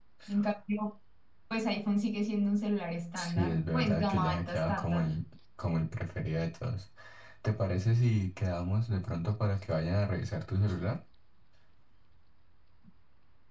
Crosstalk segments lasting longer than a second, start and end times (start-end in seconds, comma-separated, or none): 3.1-5.2